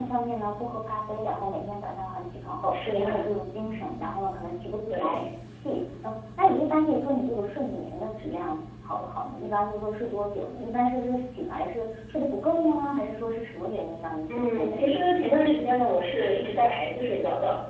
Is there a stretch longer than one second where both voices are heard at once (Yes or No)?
Yes